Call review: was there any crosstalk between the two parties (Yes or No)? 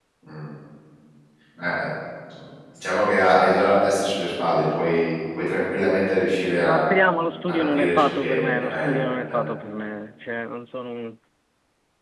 Yes